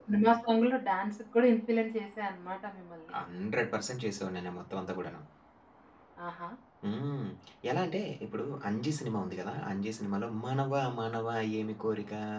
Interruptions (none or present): none